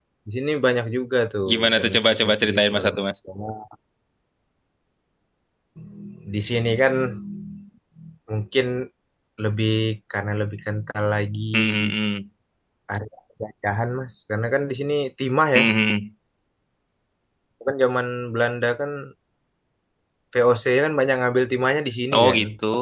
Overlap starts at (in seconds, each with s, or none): 1.5 s